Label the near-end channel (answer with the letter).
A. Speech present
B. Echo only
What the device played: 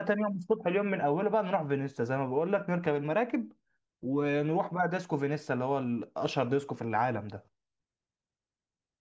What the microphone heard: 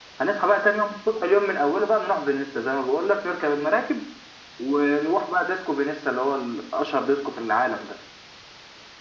B